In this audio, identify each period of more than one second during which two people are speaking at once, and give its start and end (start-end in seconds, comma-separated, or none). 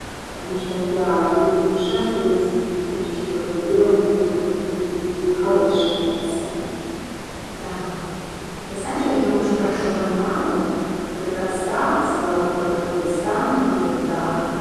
none